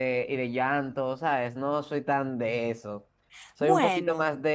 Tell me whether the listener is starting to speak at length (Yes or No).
No